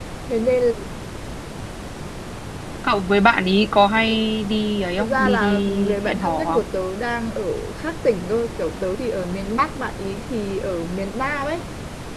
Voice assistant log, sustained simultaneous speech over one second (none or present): present